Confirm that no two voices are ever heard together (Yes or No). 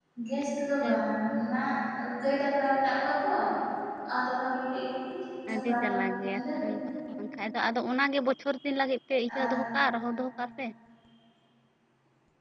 No